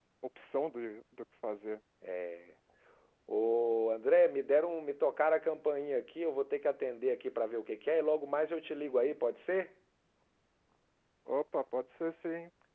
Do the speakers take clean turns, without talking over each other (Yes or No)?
Yes